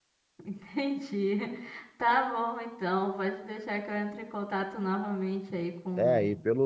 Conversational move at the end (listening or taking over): taking over